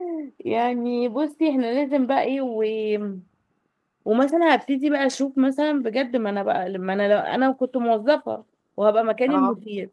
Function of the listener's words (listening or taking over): listening